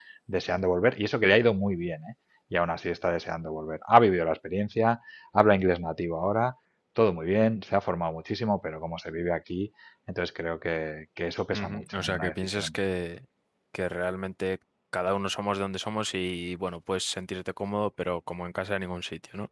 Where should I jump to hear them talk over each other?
11.5 s

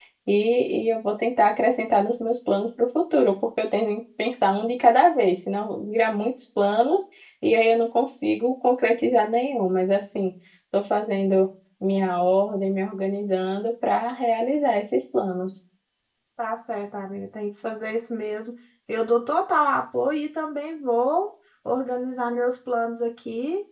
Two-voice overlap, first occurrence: none

